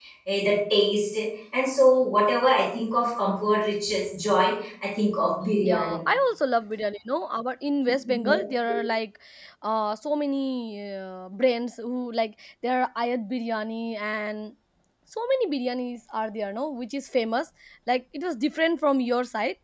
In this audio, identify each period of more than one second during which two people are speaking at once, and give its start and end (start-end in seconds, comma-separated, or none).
none